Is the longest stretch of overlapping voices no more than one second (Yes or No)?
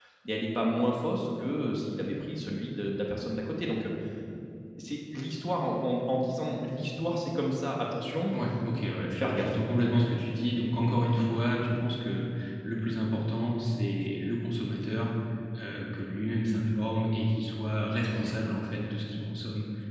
Yes